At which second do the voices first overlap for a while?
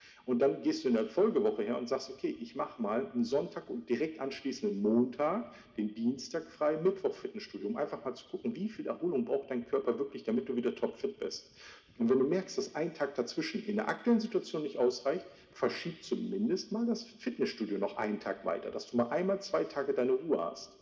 none

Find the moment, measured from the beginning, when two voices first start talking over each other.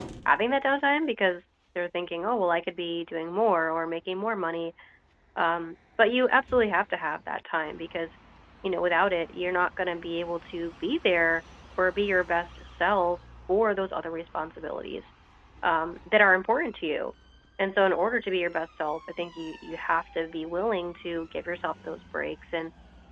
none

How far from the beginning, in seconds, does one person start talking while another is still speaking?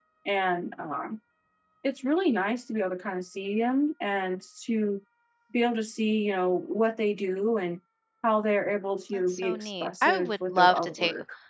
9.1 s

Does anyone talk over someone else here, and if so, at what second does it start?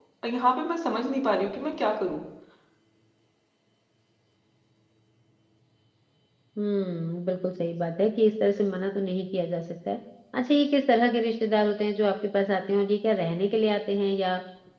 none

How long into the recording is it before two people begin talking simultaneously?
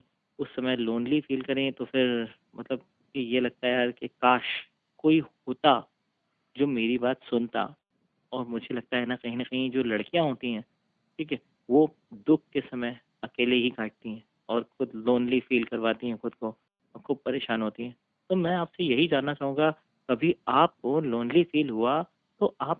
none

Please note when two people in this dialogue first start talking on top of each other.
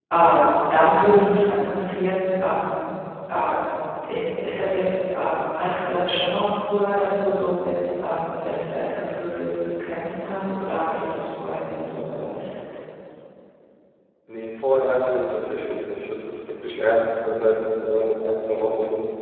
none

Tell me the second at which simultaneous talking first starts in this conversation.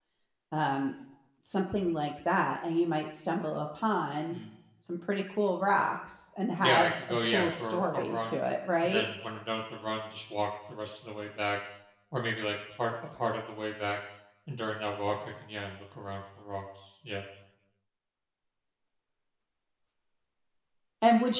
6.6 s

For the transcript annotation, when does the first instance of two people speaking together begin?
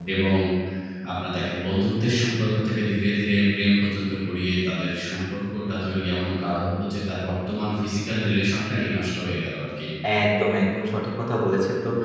none

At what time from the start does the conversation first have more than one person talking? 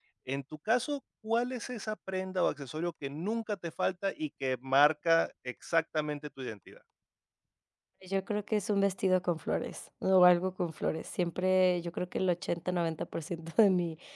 none

